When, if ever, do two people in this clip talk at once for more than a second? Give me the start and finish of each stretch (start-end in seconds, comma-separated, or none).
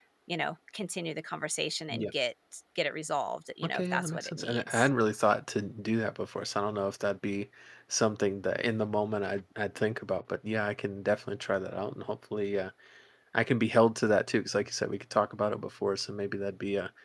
3.6-4.9